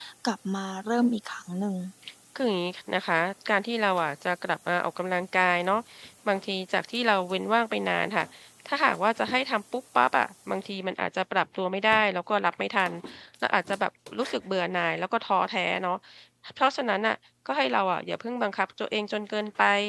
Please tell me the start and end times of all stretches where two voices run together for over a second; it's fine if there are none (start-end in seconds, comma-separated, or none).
none